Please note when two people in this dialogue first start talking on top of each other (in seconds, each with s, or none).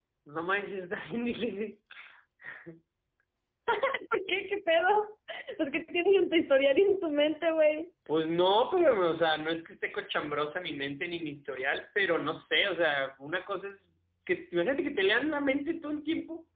none